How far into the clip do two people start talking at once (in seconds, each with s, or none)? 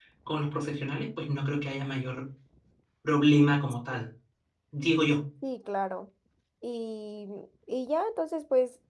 none